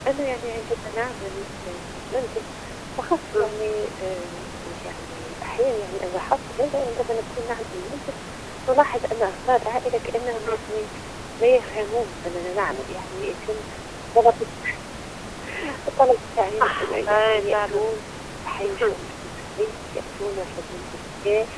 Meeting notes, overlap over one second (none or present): present